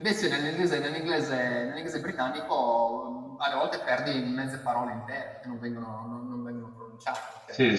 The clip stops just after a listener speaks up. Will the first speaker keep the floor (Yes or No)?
No